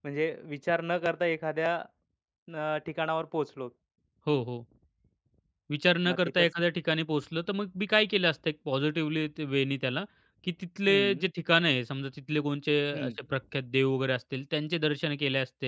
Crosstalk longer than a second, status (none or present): none